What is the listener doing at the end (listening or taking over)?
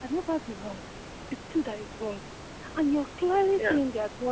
listening